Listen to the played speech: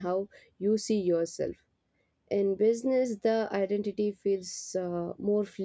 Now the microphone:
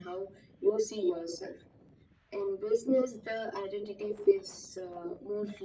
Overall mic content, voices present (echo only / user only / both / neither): echo only